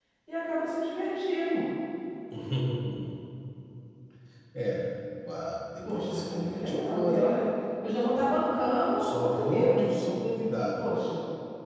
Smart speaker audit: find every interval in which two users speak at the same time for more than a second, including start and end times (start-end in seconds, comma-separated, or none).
5.8-7.3, 8.5-9.8